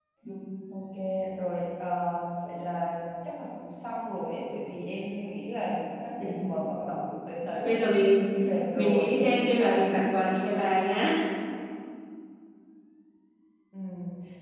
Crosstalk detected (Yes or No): Yes